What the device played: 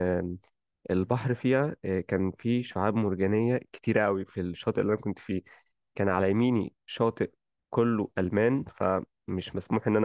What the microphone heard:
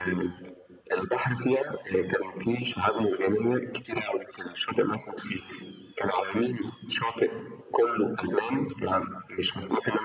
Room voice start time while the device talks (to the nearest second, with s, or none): none